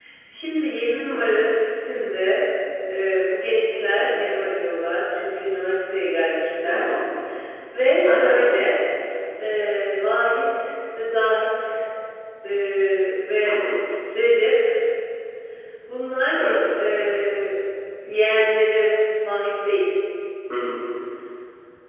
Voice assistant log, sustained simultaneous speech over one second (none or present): none